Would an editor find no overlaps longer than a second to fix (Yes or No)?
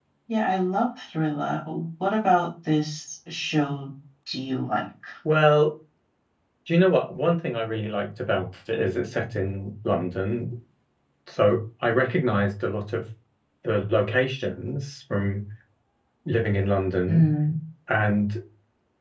Yes